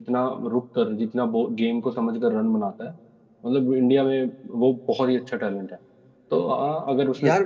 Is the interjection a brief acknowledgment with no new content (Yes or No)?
Yes